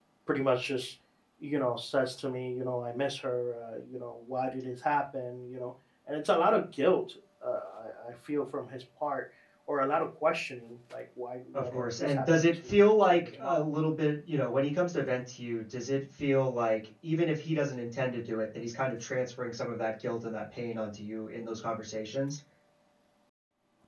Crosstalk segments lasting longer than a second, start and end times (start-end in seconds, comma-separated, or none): 11.5-13.7